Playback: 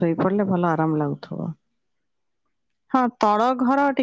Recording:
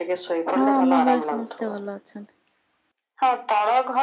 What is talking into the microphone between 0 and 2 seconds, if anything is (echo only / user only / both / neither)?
both